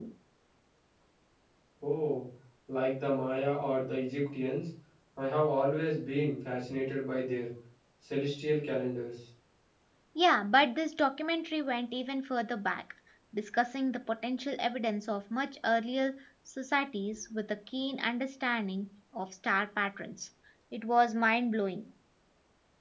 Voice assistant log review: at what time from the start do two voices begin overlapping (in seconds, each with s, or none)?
none